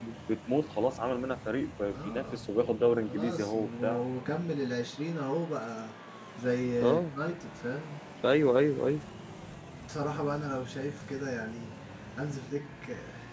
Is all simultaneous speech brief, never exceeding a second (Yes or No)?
No